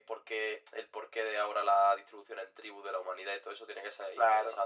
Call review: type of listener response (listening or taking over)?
taking over